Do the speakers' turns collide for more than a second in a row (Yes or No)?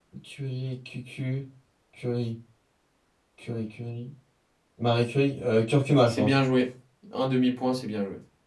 No